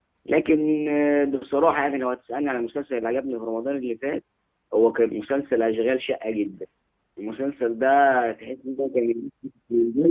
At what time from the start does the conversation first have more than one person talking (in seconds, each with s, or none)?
none